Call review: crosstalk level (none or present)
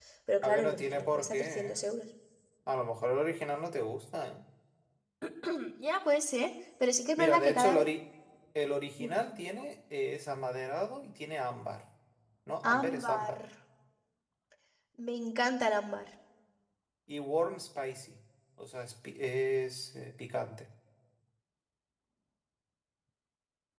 present